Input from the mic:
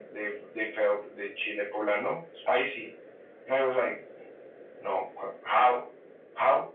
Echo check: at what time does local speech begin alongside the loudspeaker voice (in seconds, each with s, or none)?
none